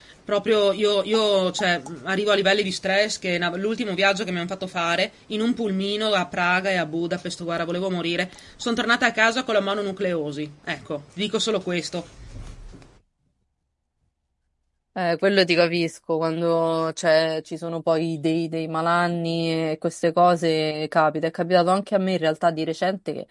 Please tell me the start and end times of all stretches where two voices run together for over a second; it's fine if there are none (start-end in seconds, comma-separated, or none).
none